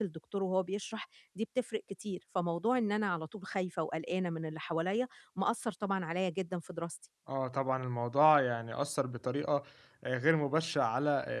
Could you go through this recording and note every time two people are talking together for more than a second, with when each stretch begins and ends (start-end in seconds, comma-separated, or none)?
none